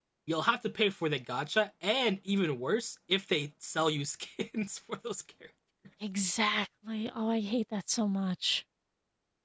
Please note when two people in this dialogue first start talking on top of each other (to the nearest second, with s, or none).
none